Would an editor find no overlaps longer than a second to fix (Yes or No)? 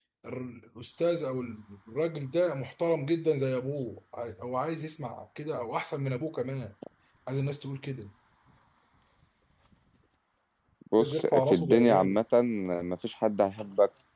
No